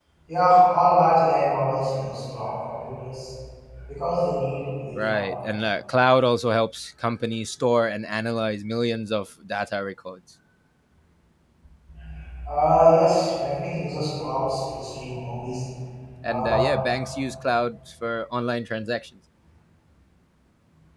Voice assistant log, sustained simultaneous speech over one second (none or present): none